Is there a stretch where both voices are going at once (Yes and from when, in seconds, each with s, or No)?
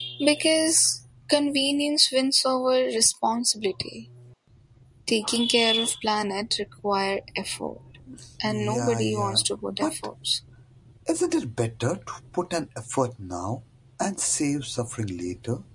Yes, from 8.4 s